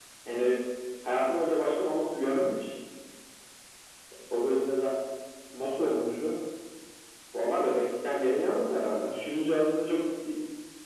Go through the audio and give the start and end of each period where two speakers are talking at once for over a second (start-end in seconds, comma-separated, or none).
none